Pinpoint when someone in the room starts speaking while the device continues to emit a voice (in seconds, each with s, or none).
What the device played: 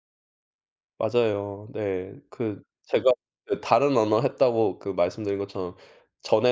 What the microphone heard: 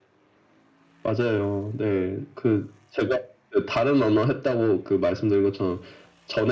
none